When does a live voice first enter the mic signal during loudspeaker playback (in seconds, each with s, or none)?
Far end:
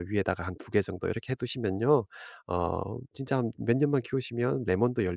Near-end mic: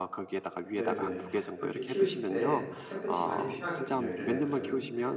0.7 s